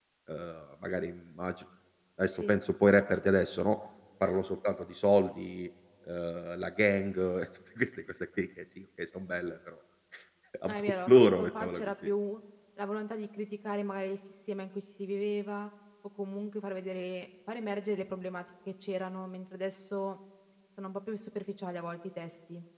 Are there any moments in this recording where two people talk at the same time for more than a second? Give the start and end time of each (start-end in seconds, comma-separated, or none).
10.7-11.9